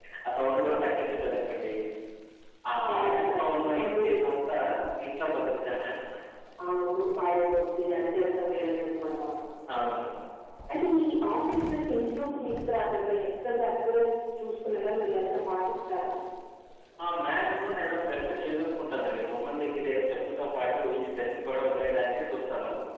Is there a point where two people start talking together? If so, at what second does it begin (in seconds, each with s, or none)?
2.9 s